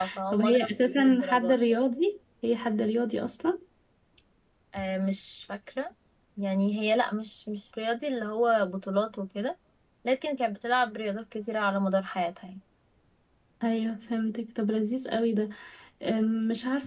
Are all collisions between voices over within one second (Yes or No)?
No